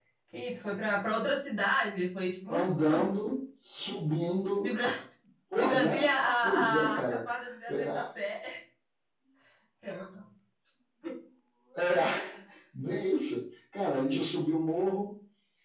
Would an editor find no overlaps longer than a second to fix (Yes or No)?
No